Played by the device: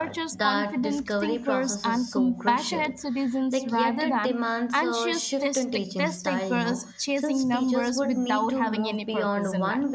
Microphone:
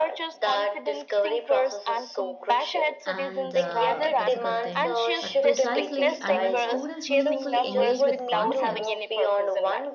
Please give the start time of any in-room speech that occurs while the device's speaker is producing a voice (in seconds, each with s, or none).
3.0 s